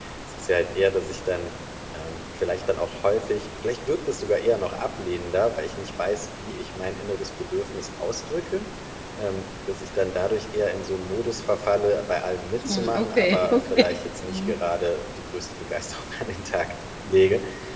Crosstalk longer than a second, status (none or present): present